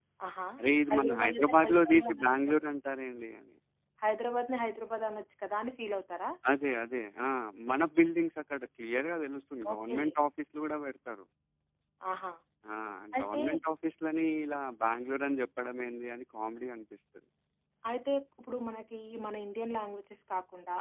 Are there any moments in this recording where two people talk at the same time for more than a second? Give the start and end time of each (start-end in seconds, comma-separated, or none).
0.9-2.5